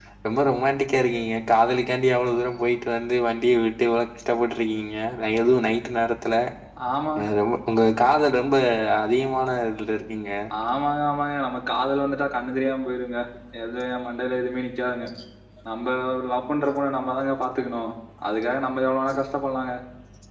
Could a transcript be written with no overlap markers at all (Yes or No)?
Yes